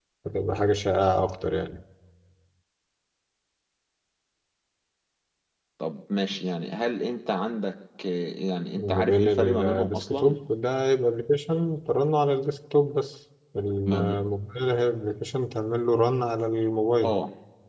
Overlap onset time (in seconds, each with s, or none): 8.8 s